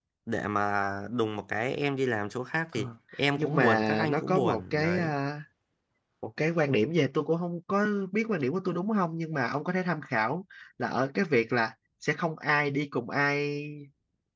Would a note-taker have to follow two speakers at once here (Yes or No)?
Yes